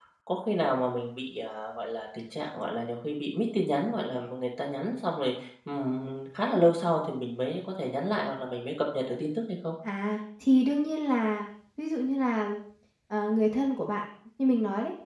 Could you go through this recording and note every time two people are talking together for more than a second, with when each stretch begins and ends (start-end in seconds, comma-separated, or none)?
none